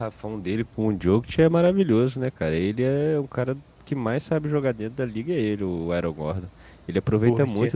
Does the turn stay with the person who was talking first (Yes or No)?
Yes